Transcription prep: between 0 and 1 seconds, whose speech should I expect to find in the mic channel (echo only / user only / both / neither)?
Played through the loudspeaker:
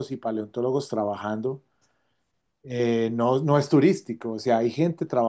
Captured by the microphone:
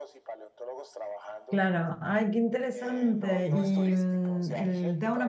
echo only